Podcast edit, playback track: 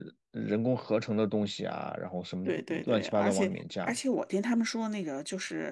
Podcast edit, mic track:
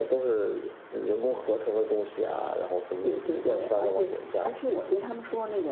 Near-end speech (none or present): none